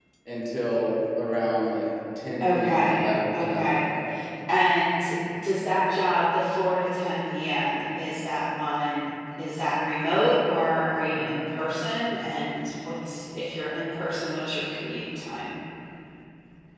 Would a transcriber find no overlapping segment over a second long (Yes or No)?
No